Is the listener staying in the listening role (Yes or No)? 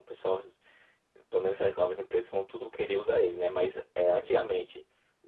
Yes